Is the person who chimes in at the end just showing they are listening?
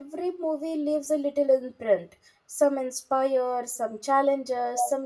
Yes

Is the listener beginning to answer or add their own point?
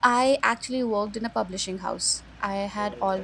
No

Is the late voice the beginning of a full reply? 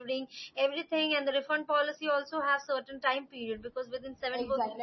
Yes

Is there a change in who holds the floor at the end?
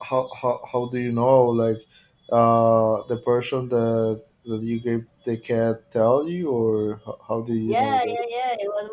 Yes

